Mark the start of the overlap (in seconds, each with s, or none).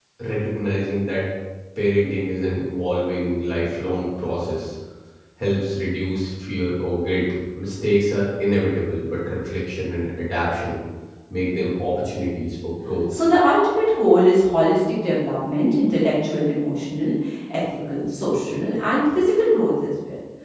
none